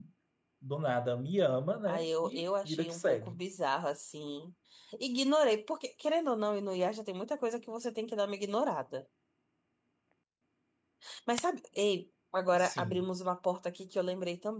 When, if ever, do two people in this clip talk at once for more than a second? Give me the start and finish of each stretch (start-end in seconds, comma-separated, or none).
1.9-3.4